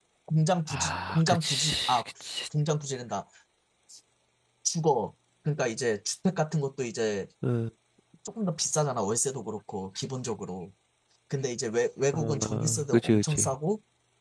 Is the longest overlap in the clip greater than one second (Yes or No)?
Yes